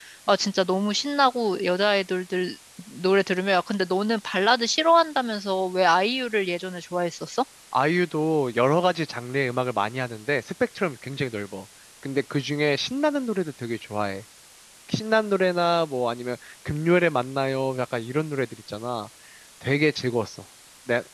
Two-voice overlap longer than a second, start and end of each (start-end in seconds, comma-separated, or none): none